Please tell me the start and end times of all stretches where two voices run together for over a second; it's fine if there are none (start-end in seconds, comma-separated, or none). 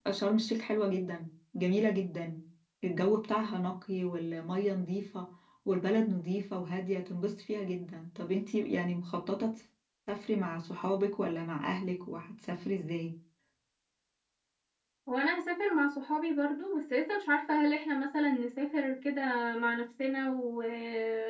none